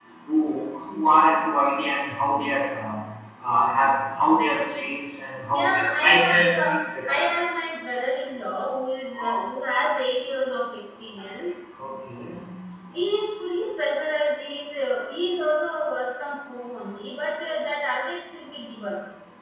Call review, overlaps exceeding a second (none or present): present